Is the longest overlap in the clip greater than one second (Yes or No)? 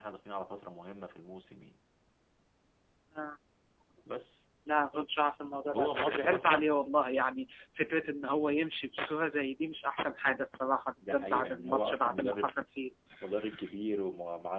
Yes